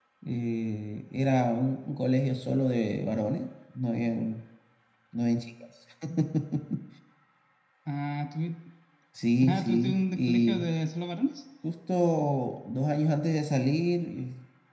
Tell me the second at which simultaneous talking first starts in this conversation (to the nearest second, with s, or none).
9 s